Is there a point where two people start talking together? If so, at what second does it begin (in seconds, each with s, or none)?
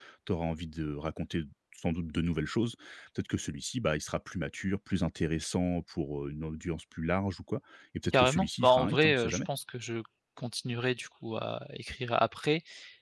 8.1 s